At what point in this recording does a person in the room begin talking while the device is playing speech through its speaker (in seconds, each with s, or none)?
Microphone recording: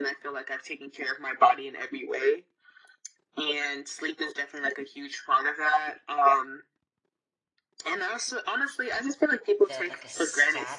9.7 s